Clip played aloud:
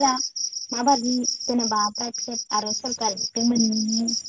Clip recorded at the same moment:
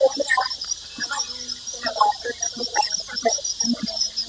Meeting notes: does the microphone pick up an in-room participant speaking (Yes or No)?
No